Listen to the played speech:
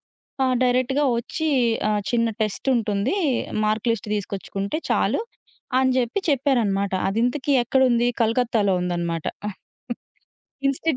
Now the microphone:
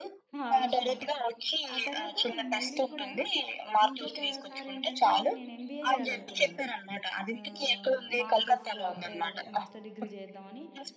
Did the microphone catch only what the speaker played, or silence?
No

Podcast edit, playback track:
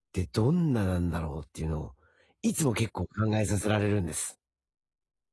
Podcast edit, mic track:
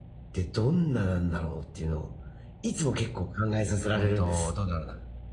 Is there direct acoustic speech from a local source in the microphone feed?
Yes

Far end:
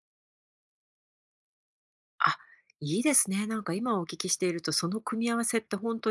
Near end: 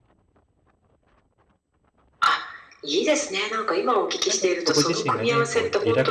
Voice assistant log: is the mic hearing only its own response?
No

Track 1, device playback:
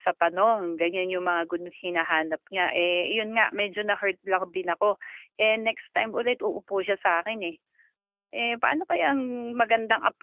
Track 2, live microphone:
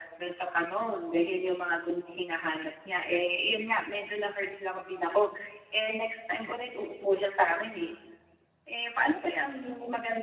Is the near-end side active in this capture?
No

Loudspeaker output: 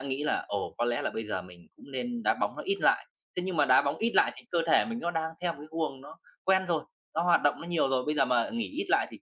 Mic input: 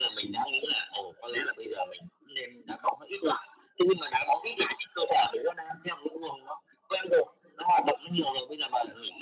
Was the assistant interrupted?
No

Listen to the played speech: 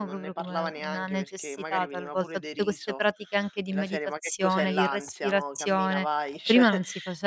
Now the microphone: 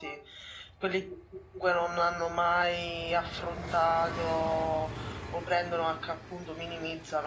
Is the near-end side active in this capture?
Yes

